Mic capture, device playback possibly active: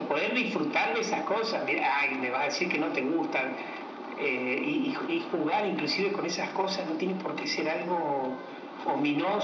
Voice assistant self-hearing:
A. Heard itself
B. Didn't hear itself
A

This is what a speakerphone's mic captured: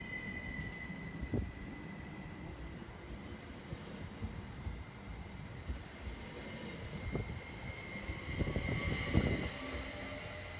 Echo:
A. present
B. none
B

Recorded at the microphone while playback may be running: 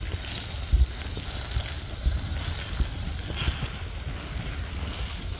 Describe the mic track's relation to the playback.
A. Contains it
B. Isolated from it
B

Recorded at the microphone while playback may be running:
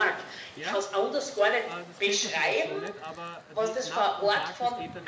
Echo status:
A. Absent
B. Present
B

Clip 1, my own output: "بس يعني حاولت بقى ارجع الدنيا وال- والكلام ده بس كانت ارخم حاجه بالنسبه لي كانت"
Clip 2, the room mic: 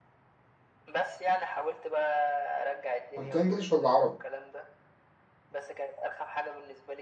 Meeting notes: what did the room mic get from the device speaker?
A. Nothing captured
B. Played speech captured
B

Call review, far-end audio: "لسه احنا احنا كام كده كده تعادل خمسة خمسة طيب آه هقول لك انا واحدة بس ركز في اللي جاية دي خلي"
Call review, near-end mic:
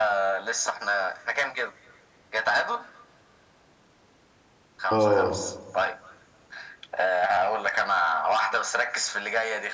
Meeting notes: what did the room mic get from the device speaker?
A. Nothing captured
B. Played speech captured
B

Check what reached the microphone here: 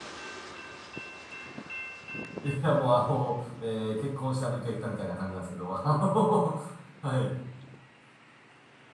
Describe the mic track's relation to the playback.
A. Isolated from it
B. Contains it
A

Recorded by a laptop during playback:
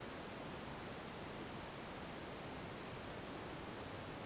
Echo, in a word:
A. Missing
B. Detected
A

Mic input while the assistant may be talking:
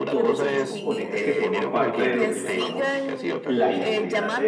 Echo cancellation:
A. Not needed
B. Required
B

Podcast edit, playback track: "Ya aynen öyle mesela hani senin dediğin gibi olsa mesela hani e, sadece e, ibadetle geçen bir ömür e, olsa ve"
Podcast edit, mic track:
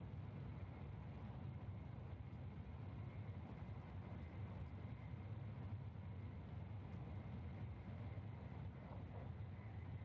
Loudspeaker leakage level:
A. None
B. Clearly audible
A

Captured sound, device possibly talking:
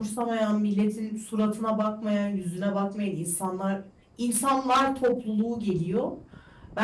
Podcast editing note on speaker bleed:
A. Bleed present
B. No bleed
B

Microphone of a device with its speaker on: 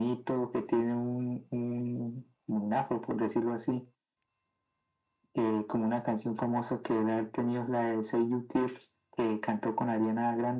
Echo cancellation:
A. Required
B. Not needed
A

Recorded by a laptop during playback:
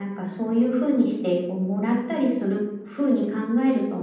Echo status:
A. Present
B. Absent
A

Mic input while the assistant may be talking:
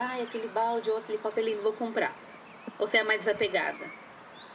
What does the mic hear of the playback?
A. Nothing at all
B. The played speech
A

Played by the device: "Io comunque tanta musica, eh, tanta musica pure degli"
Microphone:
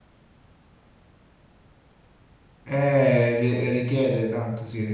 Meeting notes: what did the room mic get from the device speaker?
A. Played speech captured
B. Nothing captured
B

